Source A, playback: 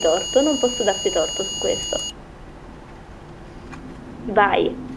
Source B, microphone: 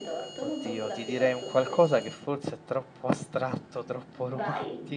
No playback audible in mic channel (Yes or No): No